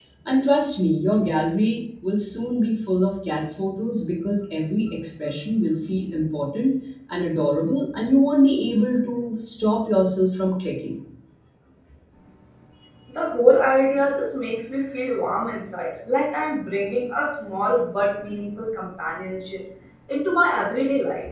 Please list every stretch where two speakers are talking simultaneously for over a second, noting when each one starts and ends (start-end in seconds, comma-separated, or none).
none